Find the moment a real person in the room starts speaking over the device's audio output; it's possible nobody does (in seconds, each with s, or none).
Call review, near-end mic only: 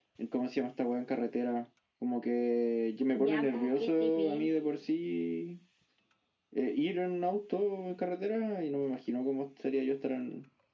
3.1 s